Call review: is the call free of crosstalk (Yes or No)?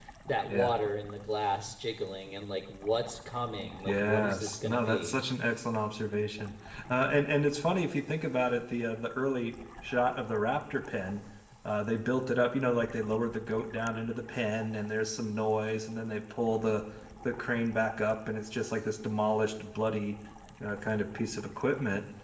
No